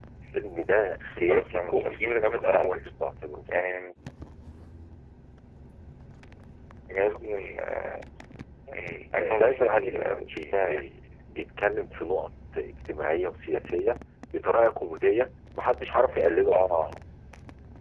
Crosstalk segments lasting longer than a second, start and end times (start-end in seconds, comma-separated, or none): 1.2-2.9, 9.1-10.9